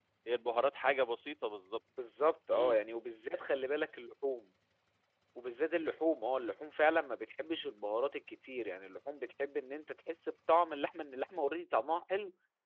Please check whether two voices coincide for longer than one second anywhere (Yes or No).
No